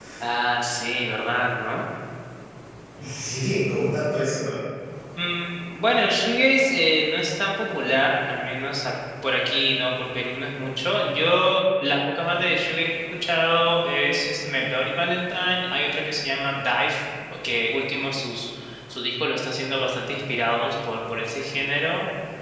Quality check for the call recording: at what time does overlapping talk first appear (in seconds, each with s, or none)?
none